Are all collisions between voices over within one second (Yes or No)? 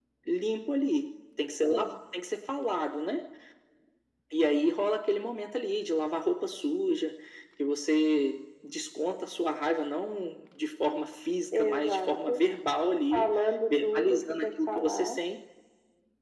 No